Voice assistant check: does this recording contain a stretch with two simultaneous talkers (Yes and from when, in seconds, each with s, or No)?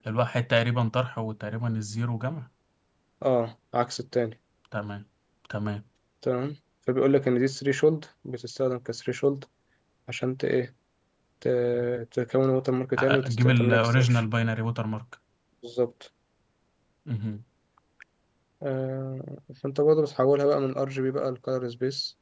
Yes, from 13.0 s